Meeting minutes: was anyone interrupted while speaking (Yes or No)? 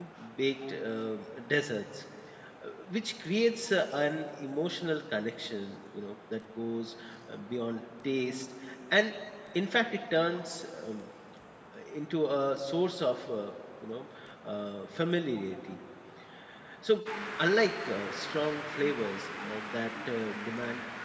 No